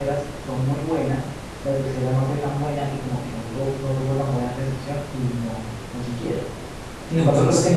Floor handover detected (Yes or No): No